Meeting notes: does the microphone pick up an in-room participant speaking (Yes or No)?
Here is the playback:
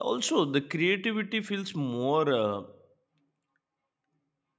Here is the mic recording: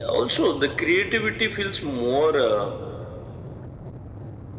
No